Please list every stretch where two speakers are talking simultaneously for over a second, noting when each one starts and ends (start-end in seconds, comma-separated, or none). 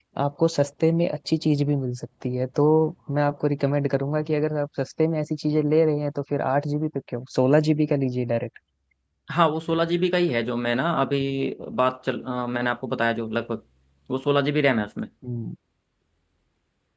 none